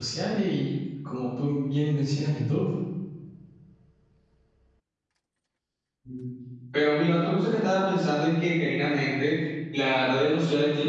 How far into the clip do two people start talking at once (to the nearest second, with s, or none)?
none